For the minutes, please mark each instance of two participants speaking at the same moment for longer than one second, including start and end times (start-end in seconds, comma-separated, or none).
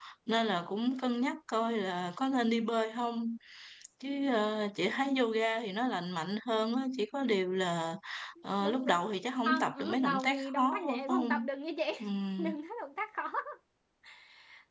9.4-11.4